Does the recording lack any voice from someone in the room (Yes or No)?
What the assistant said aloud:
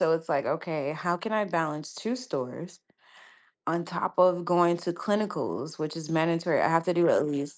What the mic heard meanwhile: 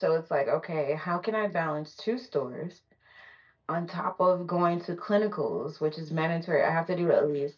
Yes